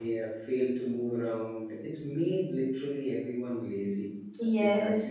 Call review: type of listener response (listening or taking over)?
taking over